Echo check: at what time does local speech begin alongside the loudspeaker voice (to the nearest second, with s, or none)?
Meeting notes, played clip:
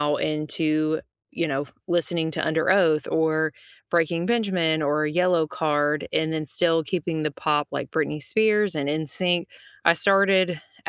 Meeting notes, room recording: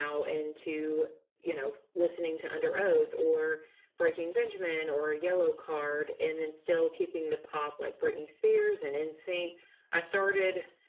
none